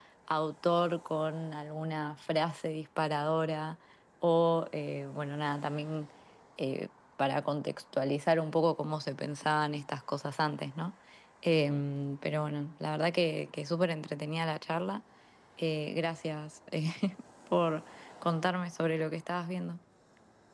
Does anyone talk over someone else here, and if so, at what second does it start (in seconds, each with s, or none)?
none